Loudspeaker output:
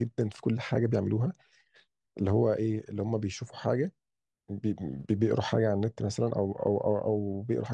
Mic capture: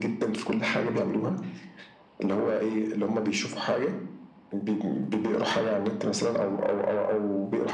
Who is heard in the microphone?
echo only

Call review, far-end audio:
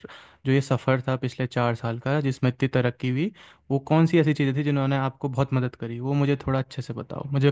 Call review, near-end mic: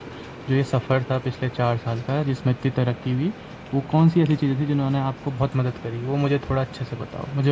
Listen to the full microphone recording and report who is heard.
echo only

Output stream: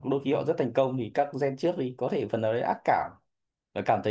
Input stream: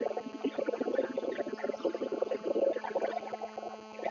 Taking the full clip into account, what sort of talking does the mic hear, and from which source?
echo only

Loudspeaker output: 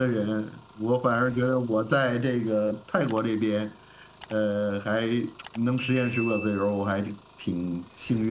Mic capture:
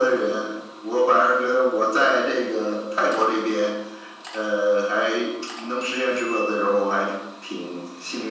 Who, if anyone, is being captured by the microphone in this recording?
echo only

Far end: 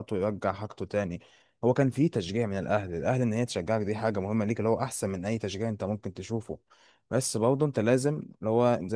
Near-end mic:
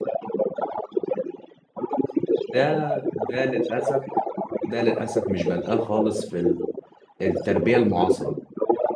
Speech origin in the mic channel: both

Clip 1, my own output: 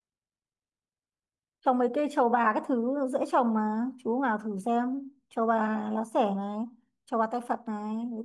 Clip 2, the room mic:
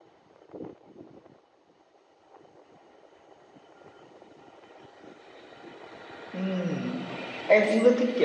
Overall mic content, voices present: user only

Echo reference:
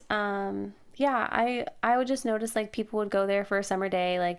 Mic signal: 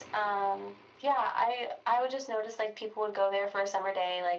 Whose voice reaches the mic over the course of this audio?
echo only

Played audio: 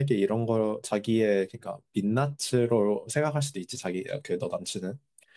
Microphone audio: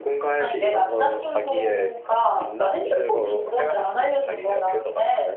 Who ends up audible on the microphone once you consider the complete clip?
both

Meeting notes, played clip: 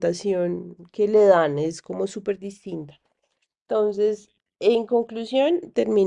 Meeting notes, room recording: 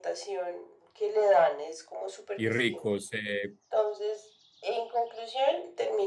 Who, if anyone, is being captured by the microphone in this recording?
both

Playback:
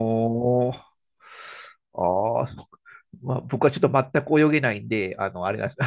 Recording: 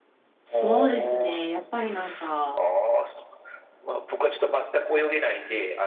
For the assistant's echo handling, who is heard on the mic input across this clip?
both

